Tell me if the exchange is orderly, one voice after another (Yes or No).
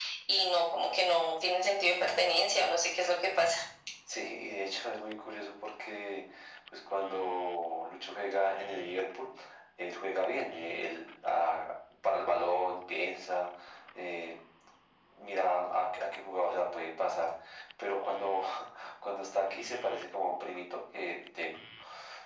Yes